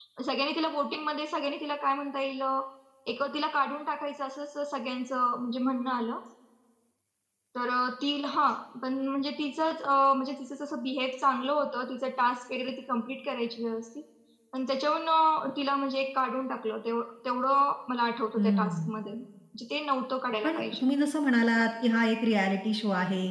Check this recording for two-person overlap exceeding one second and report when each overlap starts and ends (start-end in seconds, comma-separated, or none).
none